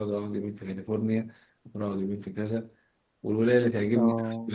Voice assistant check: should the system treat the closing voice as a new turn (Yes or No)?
No